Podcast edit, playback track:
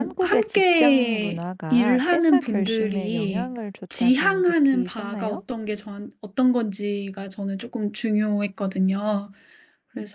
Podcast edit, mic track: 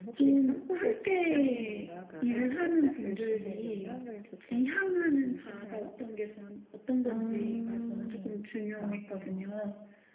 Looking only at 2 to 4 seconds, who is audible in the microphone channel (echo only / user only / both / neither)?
echo only